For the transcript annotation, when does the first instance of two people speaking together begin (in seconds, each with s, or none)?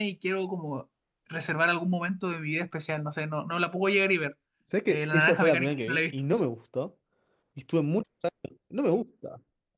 4.9 s